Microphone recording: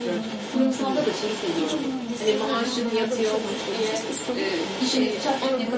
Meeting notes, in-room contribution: present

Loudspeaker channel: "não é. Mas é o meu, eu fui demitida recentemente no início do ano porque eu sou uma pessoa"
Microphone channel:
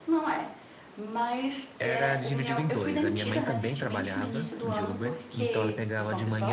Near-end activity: present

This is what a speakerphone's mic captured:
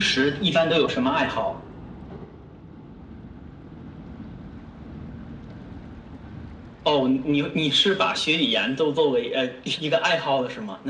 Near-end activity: none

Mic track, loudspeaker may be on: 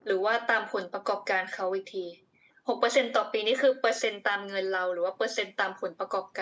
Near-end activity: none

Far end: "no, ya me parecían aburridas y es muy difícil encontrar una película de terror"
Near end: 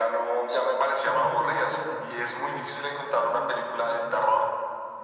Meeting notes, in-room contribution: present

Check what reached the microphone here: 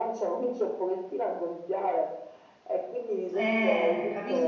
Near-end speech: present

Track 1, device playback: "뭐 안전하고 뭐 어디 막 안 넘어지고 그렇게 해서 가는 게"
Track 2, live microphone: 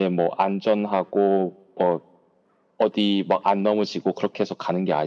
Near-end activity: none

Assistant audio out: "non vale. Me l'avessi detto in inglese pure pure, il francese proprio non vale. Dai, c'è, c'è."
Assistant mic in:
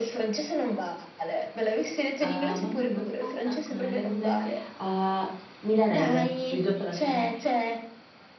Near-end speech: present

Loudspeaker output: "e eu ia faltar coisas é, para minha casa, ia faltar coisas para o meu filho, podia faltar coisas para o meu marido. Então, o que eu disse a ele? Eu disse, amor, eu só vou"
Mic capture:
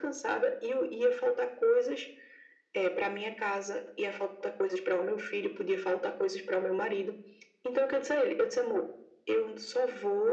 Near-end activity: none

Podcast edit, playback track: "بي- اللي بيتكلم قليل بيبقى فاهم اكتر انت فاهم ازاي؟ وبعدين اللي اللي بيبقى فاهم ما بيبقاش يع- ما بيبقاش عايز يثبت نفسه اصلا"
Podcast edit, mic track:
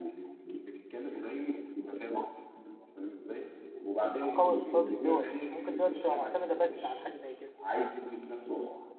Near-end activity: present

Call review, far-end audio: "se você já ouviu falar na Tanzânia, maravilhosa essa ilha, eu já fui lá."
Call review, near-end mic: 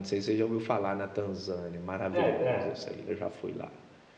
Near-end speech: present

